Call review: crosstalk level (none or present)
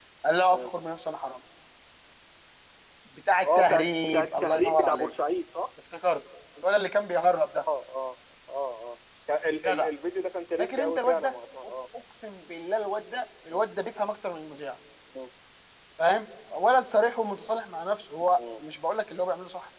present